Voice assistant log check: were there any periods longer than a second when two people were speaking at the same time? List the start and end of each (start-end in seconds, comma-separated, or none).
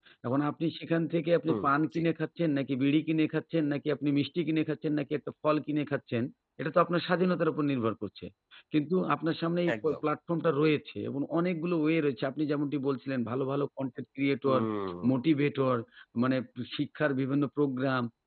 none